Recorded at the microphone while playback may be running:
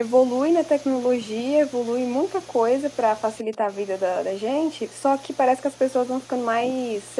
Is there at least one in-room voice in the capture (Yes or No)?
Yes